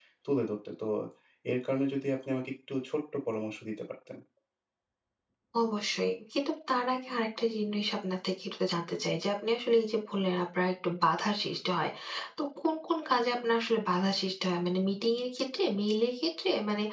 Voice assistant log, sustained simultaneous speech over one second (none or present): none